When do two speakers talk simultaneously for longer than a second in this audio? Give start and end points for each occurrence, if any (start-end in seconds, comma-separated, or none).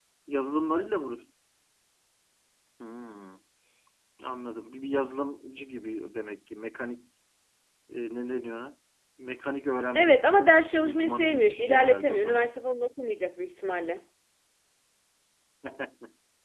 10.8-12.5